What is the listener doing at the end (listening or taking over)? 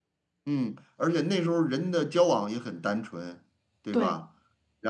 listening